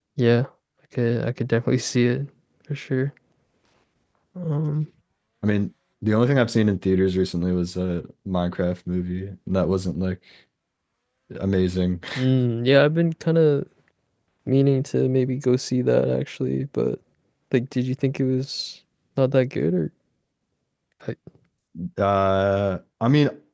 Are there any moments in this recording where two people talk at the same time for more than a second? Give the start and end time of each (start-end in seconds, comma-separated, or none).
none